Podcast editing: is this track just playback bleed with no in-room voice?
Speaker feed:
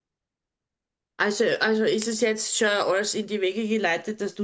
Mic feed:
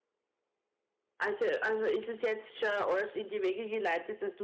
Yes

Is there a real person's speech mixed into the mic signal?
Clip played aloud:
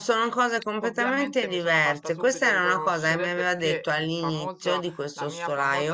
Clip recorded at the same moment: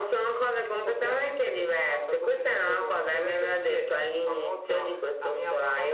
No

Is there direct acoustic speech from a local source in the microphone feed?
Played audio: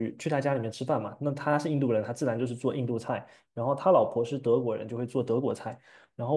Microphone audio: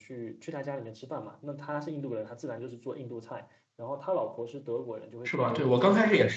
Yes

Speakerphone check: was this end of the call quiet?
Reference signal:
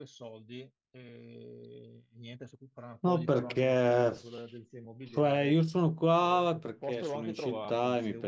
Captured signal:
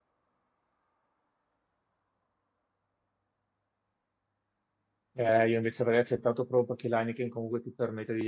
No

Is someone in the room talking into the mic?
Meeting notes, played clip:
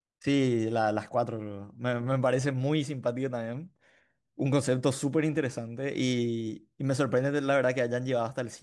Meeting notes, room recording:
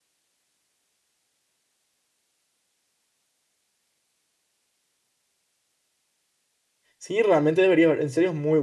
Yes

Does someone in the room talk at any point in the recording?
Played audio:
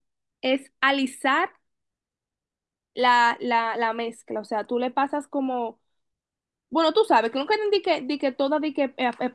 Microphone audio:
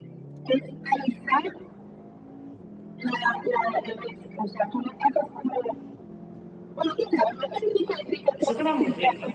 Yes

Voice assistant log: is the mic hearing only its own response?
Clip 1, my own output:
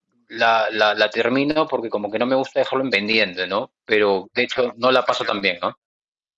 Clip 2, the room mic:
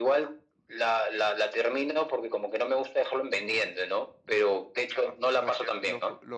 No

